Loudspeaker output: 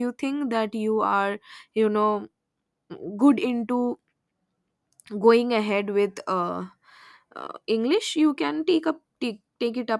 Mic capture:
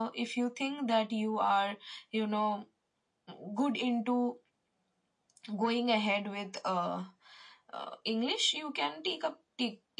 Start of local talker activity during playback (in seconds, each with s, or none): none